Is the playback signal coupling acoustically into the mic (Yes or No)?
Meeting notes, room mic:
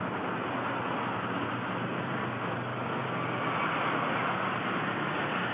No